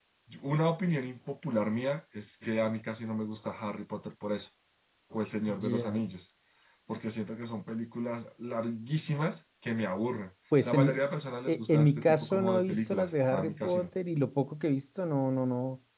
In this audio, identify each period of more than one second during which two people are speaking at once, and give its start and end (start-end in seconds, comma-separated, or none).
11.5-13.8